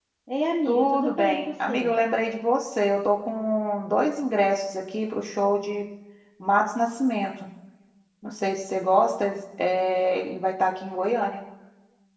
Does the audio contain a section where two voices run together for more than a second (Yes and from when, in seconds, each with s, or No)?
Yes, from 0.6 s